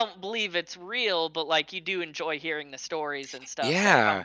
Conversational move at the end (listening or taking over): taking over